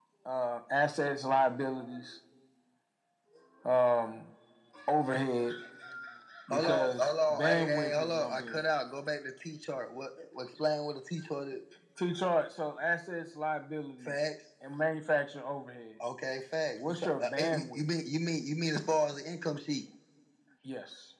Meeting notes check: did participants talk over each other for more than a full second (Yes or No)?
Yes